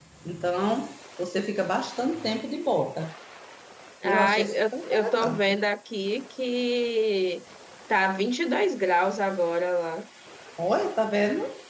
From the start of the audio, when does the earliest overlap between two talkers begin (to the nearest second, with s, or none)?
4 s